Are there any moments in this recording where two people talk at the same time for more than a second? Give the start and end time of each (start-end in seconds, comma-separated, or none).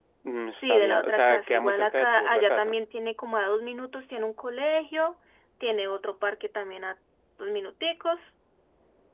0.6-2.8